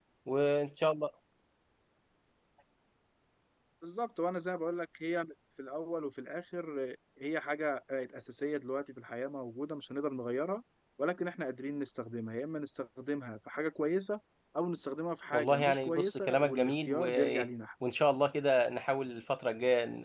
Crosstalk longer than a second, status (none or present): present